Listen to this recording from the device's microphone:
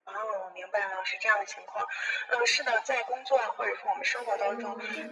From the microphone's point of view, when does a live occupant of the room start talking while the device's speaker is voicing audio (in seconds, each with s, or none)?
4.0 s